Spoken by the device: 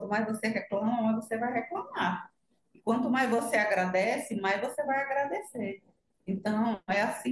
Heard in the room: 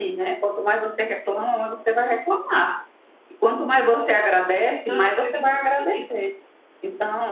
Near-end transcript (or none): Então, eu acredito muito nisso.